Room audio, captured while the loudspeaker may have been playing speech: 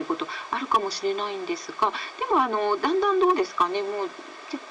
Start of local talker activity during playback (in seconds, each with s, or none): none